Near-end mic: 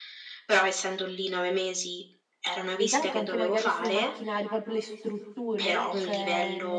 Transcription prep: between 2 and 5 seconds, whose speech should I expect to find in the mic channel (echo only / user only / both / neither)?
both